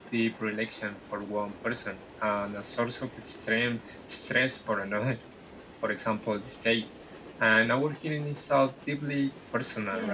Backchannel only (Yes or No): No